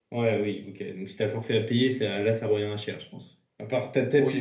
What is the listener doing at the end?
taking over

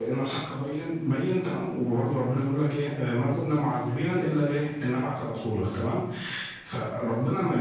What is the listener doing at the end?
listening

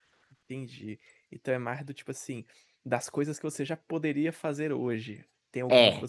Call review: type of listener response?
listening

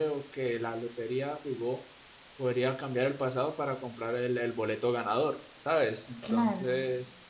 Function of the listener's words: listening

